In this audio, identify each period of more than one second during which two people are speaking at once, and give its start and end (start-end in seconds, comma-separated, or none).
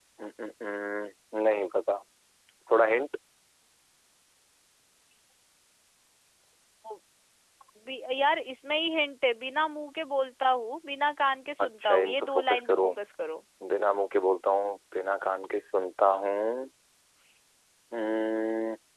11.6-12.9